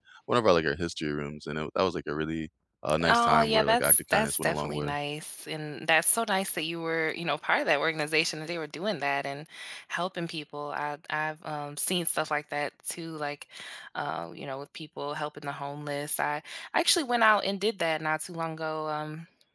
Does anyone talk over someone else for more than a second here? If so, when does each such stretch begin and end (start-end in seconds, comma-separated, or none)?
3.0-4.9